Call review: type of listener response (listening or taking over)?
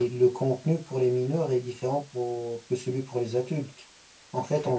listening